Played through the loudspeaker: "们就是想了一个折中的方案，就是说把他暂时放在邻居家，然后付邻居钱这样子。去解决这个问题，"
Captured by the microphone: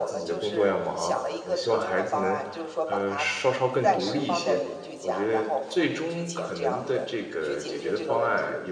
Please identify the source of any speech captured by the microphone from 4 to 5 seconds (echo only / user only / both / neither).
both